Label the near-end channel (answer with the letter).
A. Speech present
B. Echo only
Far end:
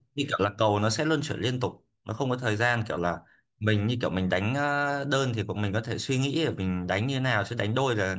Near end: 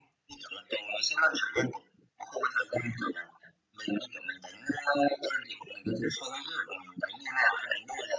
B